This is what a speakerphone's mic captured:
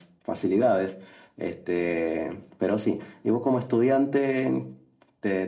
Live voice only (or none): none